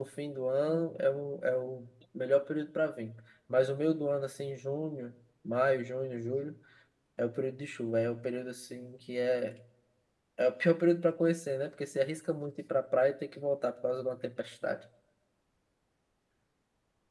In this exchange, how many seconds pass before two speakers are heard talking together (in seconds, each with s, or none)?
none